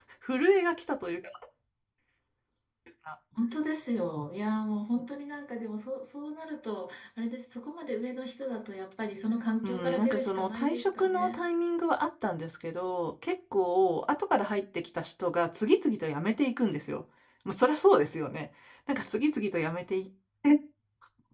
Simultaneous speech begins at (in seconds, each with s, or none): 9.6 s